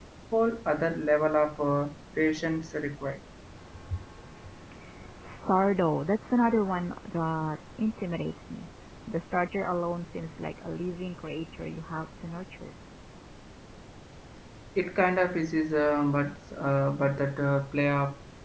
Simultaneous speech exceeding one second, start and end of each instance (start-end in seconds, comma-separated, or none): none